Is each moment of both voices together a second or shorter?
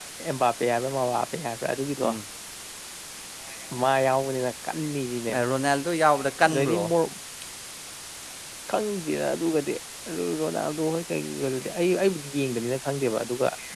Yes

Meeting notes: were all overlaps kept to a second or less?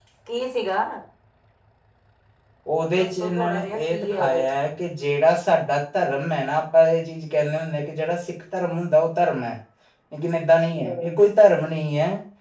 No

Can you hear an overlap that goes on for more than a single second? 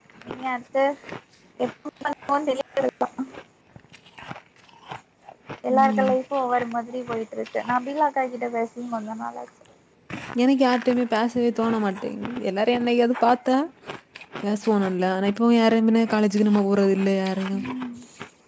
No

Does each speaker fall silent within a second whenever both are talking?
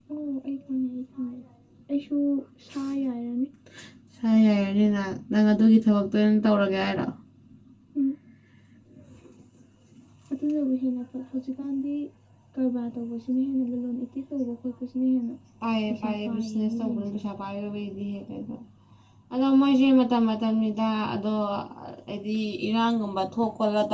No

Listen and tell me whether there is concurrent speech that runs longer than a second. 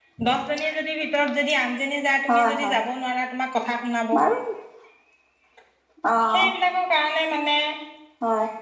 No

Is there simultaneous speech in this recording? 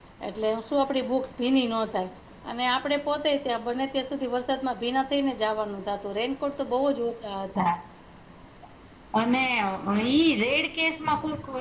No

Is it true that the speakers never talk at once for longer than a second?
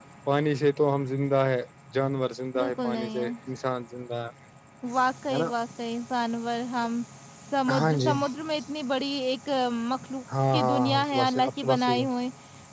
No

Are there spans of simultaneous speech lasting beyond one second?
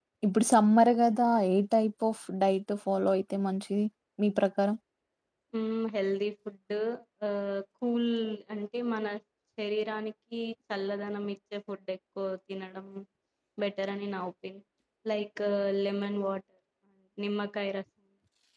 No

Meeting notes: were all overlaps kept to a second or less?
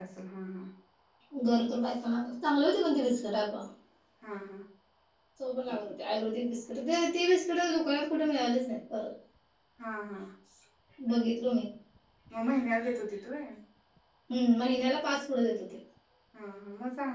Yes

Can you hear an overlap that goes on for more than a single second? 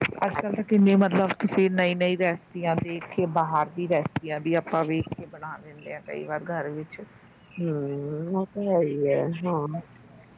No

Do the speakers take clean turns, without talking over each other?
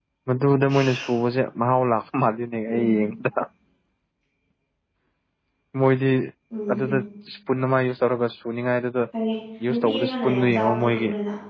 No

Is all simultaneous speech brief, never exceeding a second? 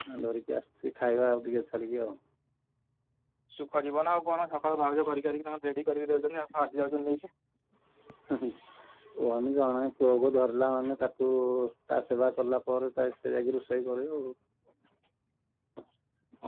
Yes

